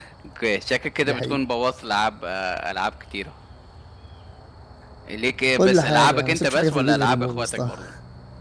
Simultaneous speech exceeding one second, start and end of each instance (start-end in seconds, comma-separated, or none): 5.6-7.7